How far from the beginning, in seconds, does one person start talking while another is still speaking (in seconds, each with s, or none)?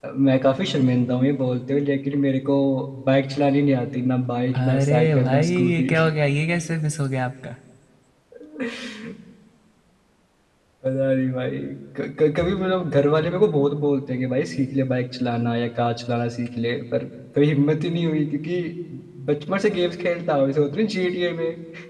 4.5 s